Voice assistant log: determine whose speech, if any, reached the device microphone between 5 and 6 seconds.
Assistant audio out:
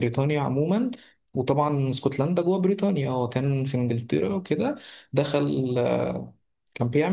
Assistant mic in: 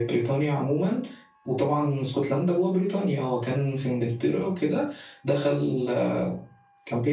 echo only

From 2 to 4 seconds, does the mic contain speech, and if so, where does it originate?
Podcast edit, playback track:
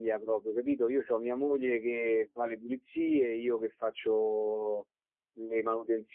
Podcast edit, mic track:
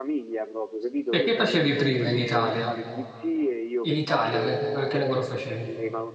both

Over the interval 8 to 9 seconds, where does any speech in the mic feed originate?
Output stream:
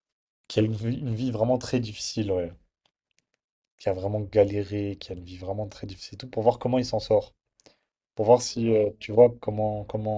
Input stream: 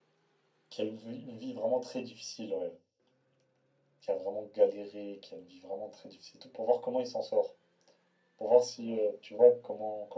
echo only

